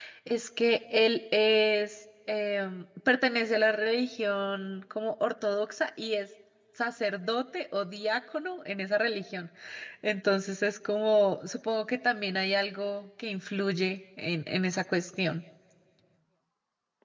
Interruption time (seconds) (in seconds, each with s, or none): none